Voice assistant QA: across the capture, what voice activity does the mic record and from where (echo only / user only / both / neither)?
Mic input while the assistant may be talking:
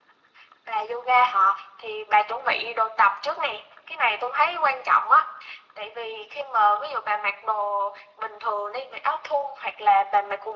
echo only